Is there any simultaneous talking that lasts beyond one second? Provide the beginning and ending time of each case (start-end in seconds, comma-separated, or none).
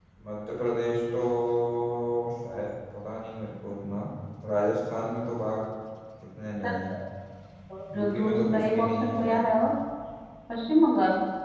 7.9-9.5